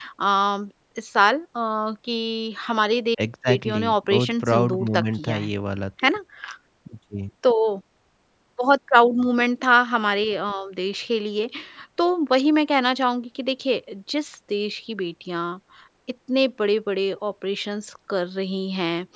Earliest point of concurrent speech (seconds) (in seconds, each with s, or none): 3.5 s